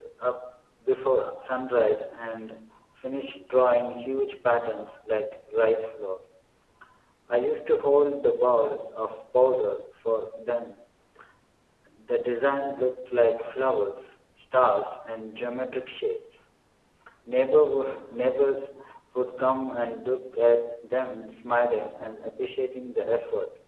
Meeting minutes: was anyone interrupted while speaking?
No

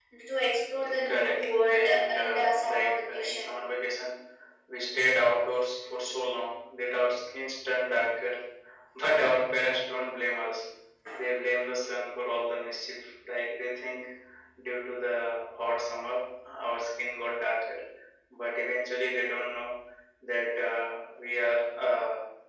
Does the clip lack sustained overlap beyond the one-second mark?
No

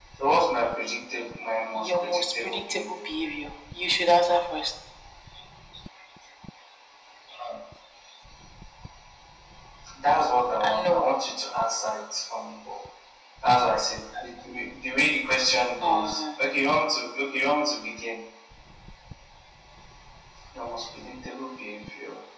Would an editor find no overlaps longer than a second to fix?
No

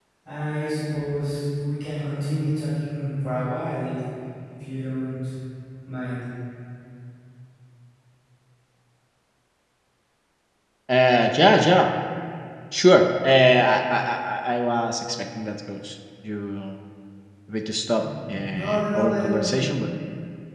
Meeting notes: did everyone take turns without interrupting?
No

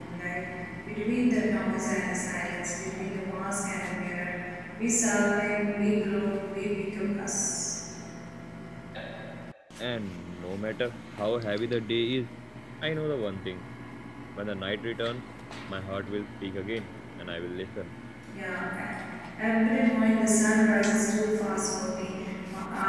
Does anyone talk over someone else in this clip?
No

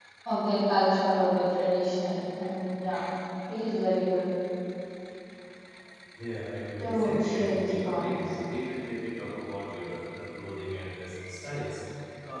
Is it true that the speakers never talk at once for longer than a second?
No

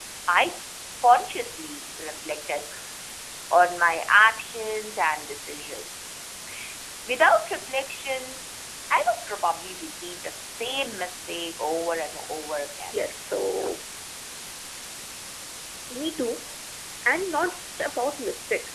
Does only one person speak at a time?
Yes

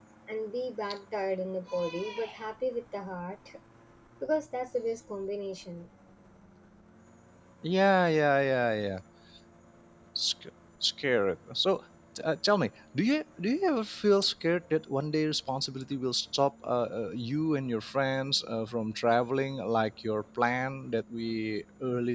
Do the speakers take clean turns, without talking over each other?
Yes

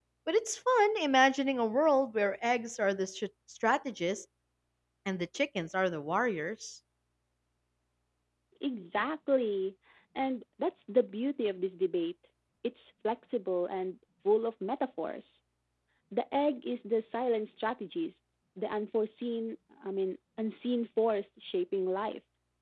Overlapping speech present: No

